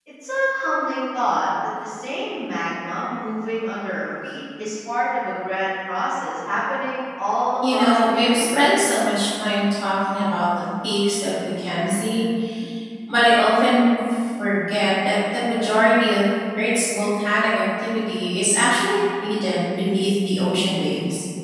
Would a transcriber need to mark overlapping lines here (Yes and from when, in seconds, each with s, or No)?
Yes, from 7.6 s